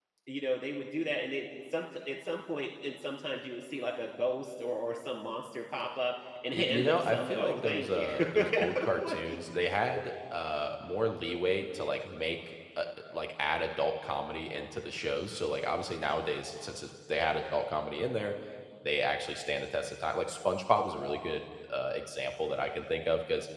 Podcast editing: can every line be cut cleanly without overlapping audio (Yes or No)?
No